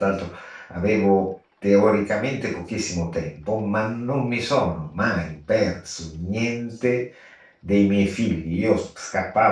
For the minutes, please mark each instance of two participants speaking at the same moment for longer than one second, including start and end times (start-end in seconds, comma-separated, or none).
none